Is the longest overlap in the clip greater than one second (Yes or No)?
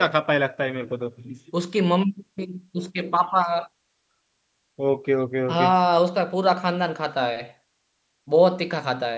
No